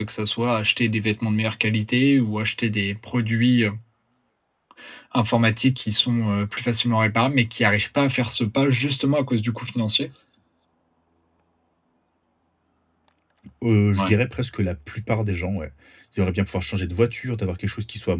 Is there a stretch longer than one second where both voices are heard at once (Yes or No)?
No